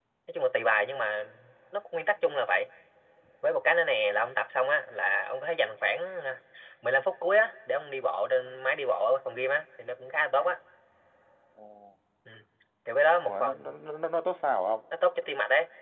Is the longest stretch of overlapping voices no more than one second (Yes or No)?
Yes